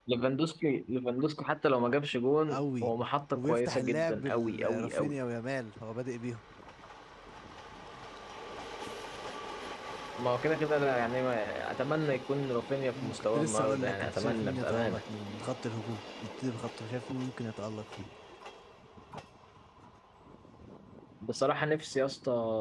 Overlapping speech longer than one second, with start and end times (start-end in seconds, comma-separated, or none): 3.3-5.1, 12.9-15.0